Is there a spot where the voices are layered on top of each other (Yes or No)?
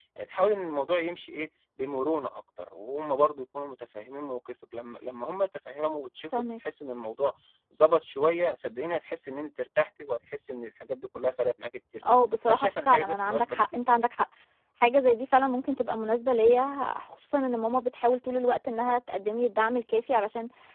Yes